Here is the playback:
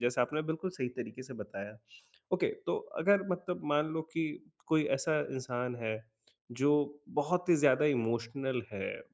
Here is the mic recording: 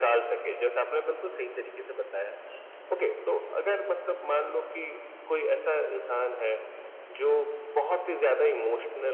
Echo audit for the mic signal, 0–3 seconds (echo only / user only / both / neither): echo only